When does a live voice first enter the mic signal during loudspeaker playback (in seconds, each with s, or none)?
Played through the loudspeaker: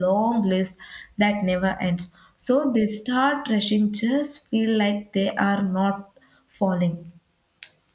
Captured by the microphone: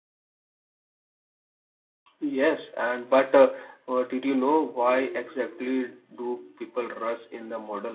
2.2 s